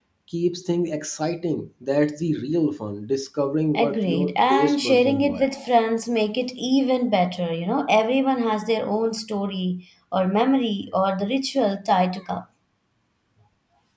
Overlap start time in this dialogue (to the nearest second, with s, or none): 4 s